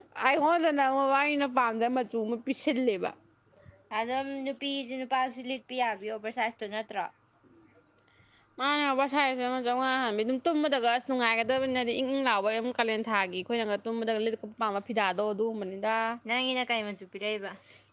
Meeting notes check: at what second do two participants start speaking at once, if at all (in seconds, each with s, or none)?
none